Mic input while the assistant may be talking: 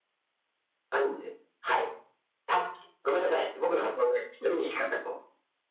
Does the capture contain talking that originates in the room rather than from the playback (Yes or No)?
No